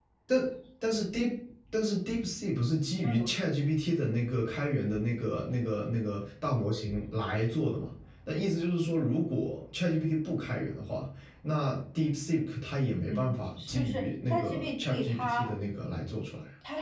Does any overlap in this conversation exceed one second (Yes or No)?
Yes